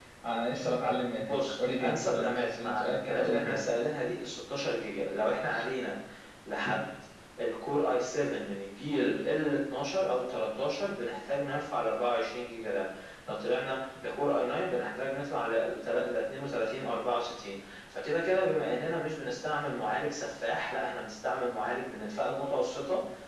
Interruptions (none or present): present